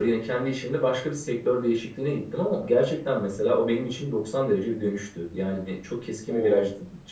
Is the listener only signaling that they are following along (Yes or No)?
Yes